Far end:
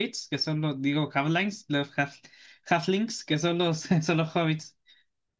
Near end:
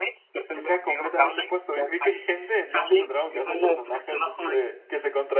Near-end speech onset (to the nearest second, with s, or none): 1 s